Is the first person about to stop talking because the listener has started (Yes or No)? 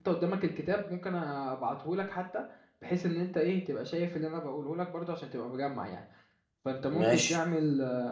No